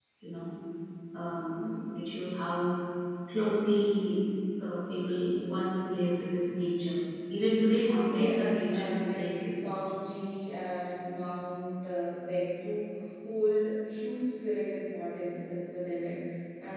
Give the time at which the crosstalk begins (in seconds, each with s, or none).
8.0 s